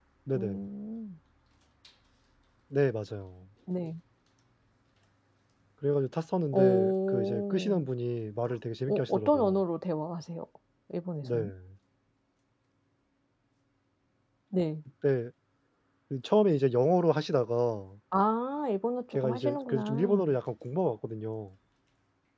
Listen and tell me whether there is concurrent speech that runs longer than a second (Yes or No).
Yes